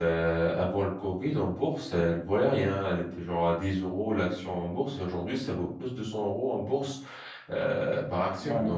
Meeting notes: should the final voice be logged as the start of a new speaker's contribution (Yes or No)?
No